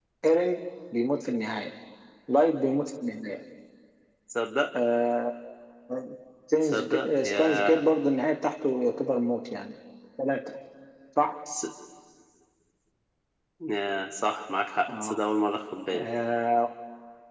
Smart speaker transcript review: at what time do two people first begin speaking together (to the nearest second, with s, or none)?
7 s